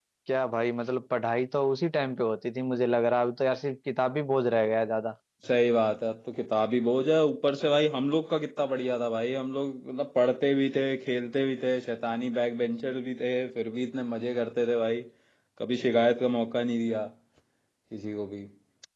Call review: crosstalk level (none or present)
none